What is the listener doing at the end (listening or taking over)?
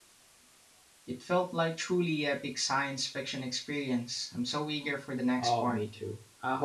taking over